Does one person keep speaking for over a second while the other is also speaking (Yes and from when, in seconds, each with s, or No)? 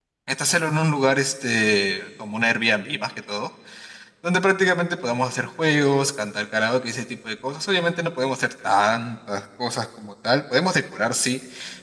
No